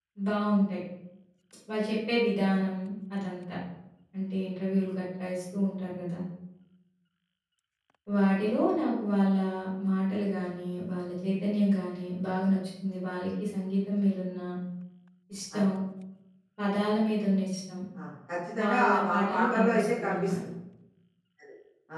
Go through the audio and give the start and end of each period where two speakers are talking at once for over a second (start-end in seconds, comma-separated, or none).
18.6-20.4